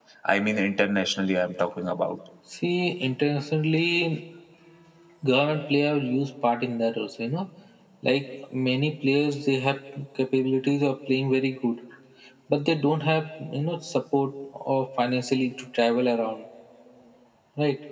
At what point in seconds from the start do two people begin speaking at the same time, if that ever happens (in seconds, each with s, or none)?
none